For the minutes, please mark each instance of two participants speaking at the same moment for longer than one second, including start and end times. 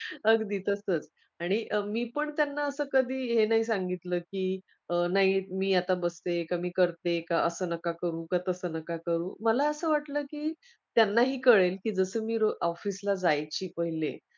none

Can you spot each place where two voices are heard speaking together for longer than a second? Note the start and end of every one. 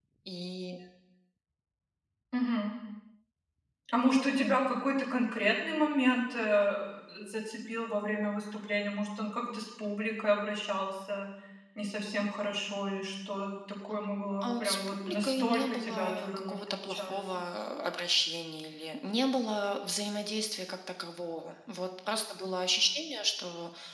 14.4-17.2

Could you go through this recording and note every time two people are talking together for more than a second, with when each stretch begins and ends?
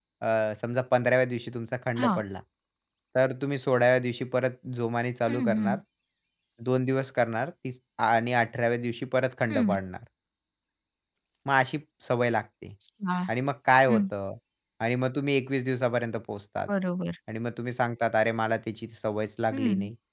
none

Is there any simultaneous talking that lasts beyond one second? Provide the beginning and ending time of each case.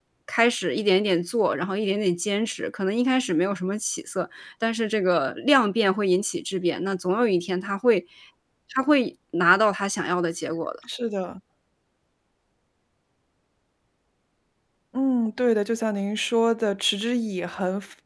none

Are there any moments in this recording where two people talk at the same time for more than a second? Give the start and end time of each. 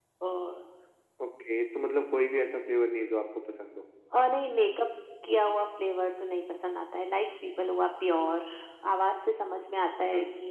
none

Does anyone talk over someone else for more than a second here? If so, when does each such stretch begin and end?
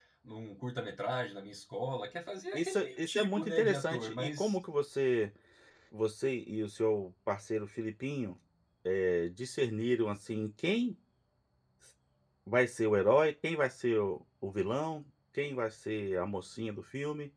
2.5-4.6

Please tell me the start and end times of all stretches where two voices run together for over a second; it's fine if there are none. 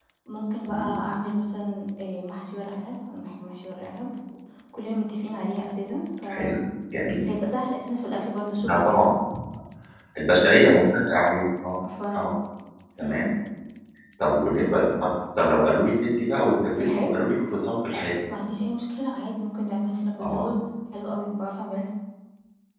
none

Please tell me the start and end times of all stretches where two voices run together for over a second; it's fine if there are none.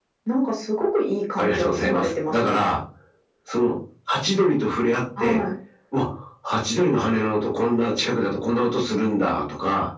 1.4-2.7

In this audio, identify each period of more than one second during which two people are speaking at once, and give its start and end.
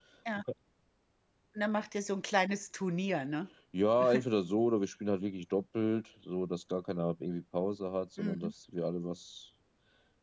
none

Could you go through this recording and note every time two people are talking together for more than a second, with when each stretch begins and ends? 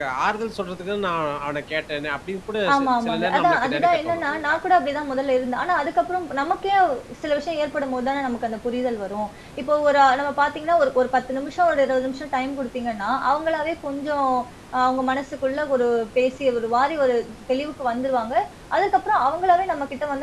2.7-4.6

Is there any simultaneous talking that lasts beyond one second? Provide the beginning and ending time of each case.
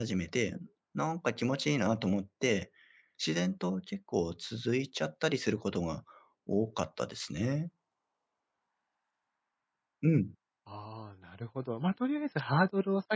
none

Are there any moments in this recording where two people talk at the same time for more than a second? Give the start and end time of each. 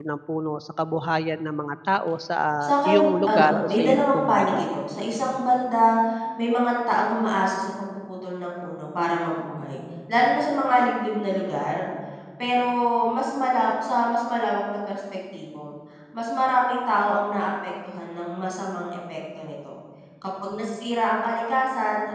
2.6-4.7

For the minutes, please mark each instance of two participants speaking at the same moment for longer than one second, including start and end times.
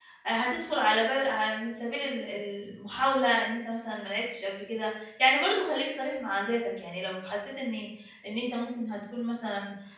none

